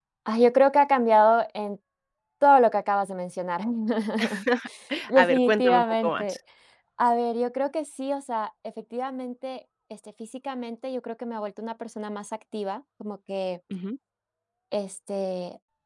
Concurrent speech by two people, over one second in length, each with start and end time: 5.2-6.4

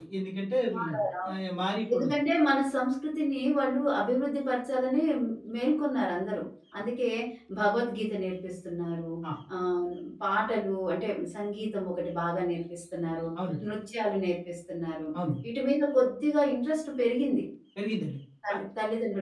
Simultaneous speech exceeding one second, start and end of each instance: none

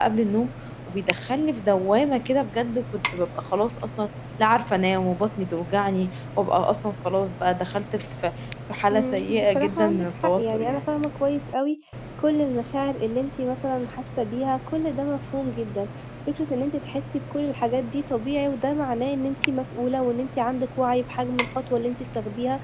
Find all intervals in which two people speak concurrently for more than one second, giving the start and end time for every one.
8.9-10.8

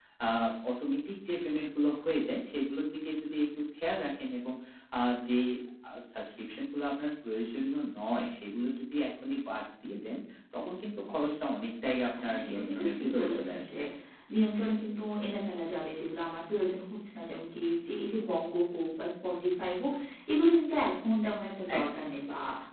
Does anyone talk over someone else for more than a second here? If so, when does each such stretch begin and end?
12.2-13.7

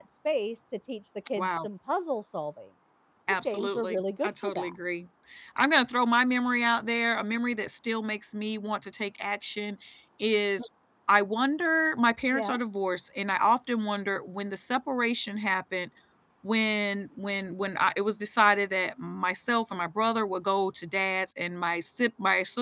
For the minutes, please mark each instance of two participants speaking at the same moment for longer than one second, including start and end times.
3.4-4.7

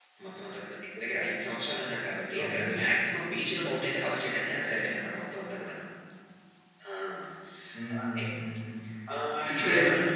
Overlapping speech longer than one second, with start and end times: none

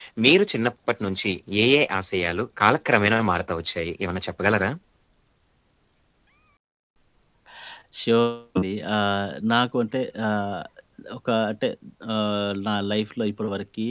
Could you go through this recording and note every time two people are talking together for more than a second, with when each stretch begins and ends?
none

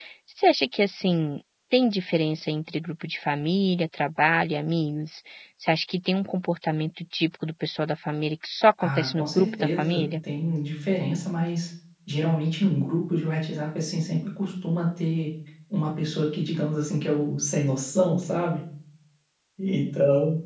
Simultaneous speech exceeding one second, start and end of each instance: 8.8-10.0

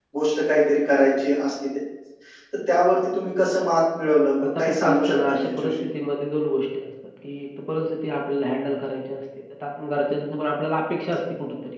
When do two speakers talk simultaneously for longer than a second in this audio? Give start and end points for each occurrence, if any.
4.6-5.8

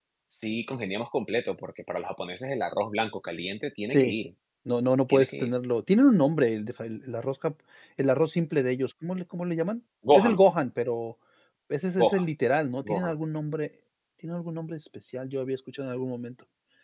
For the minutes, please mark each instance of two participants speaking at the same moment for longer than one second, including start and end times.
none

